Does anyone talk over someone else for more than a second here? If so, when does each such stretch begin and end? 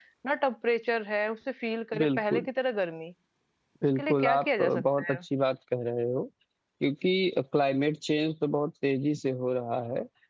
4.0-5.2

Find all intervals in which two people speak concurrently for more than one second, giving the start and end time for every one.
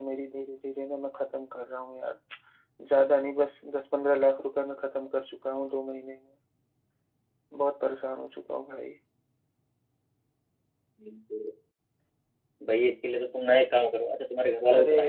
none

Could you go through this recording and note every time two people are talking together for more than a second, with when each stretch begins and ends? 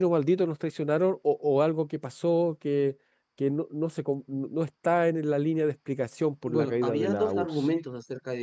6.5-7.7

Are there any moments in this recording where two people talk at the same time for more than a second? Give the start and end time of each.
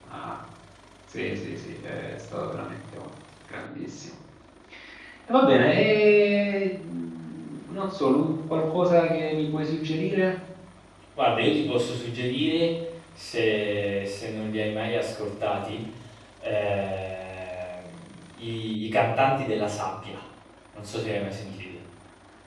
none

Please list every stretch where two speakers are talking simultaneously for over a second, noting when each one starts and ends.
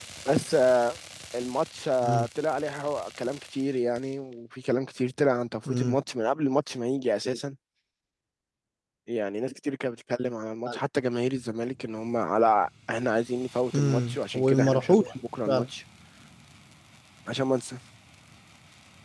13.7-15.0

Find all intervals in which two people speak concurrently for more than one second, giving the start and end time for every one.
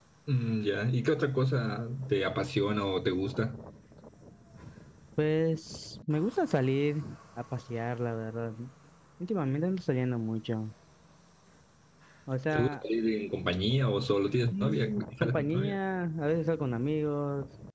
14.5-15.8

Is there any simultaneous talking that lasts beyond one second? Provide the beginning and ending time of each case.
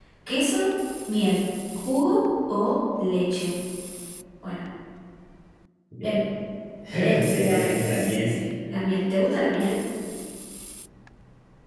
6.9-8.4

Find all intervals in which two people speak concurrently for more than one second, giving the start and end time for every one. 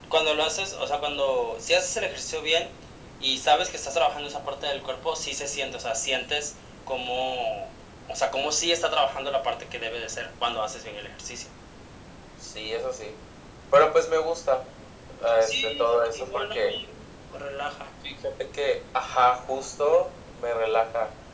15.4-16.7

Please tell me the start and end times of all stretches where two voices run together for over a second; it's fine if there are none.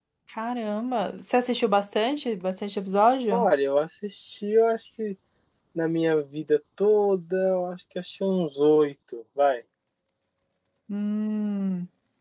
none

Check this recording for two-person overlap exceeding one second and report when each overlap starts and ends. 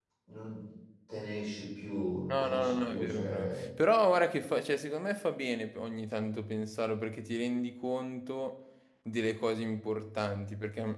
2.3-3.6

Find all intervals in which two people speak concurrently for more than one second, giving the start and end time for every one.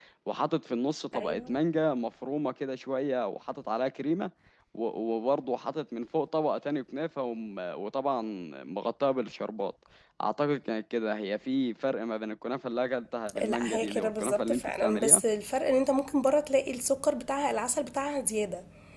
13.4-15.2

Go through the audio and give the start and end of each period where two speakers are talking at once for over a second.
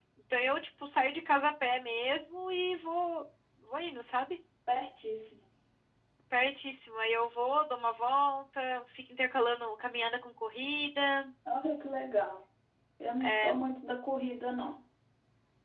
none

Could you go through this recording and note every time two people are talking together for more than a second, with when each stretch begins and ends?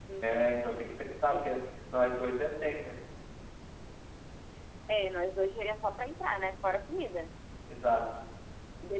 none

